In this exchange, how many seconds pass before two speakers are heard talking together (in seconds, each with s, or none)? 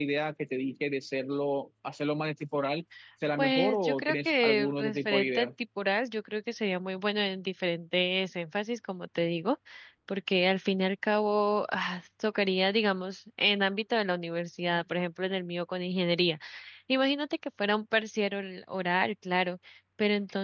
3.4 s